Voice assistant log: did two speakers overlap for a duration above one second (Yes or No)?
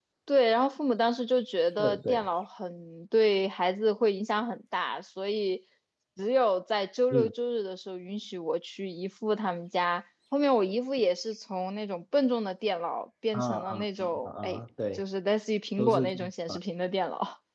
Yes